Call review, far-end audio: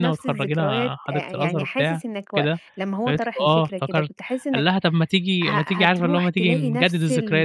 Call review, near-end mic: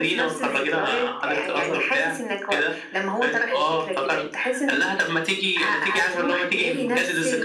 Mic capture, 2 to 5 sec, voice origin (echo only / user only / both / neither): echo only